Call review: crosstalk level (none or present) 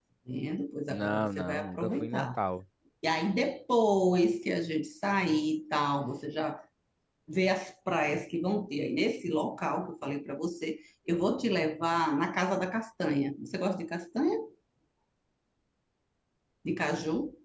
present